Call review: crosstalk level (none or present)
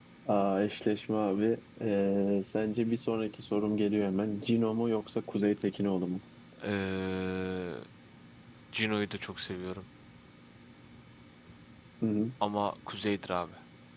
none